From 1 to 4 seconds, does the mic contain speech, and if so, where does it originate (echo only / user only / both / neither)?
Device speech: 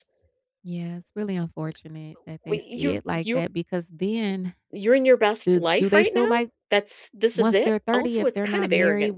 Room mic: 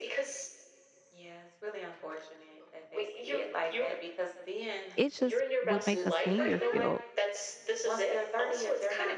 echo only